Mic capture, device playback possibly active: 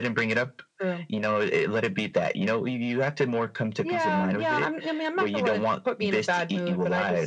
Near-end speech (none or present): none